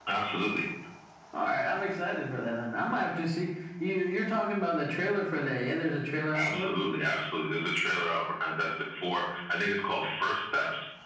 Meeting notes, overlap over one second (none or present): none